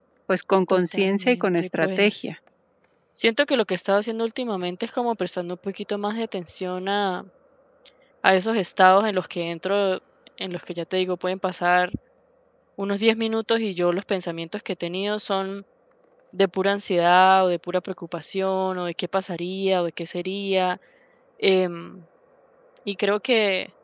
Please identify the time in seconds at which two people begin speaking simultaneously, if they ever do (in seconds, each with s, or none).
0.7 s